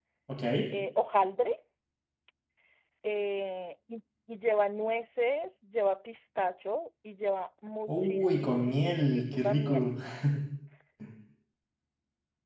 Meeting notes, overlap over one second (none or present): present